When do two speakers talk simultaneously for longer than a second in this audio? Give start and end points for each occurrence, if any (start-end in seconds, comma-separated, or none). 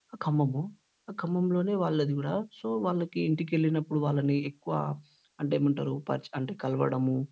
none